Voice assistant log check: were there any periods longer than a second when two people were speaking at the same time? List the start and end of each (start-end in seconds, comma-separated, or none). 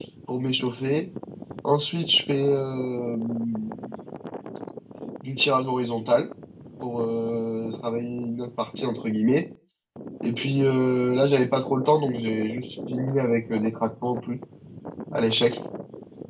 none